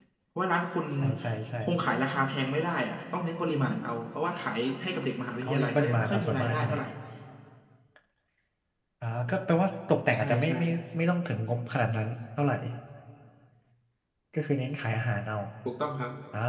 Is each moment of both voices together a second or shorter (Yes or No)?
No